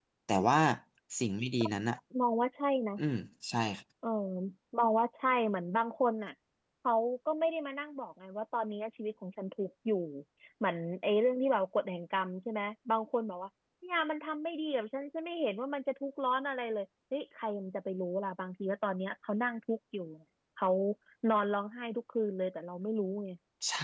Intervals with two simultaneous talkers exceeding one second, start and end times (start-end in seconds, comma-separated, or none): none